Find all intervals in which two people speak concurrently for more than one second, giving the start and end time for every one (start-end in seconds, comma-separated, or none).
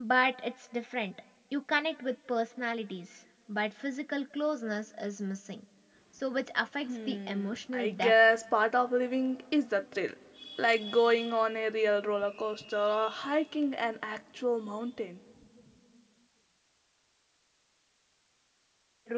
6.9-8.1